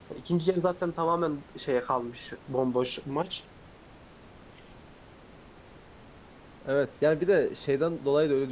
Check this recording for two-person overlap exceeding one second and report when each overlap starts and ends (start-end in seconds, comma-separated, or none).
none